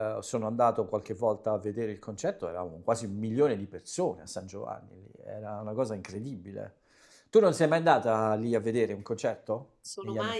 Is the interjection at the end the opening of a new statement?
Yes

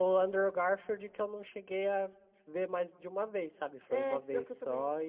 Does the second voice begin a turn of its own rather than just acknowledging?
Yes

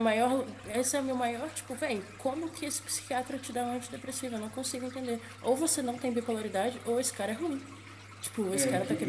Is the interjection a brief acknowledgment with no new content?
No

